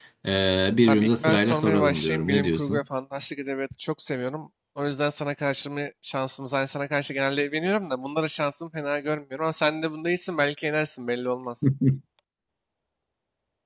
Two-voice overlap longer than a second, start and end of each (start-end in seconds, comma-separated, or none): 0.9-2.8